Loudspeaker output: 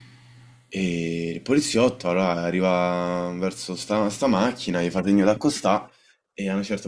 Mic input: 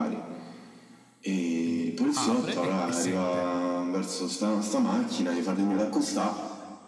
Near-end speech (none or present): present